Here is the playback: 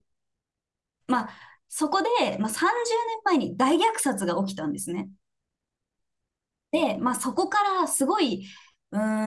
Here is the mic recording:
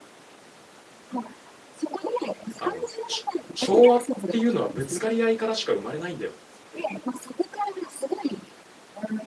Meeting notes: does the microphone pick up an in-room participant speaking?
Yes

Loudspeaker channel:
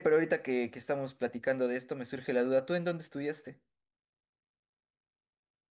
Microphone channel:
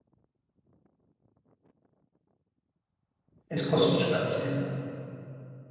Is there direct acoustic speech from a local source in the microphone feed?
Yes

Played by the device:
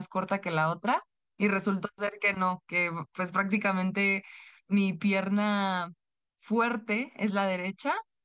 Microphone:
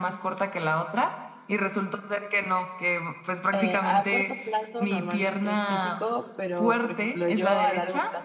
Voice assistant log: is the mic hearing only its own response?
No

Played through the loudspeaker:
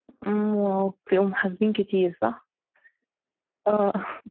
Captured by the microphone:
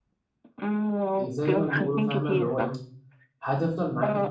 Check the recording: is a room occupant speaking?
Yes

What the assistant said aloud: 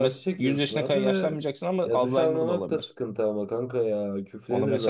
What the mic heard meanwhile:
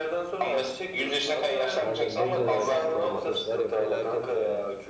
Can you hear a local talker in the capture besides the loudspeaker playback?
Yes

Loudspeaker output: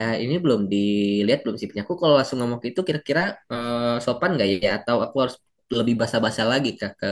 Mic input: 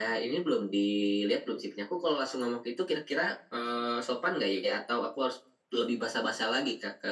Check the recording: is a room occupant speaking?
No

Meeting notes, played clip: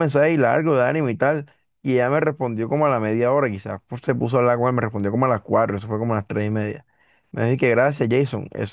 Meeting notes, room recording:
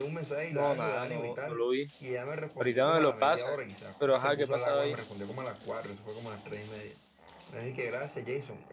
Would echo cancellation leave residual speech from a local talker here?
Yes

